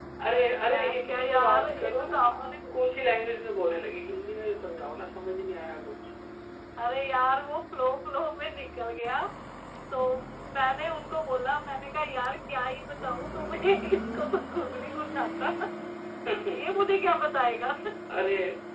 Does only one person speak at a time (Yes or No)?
No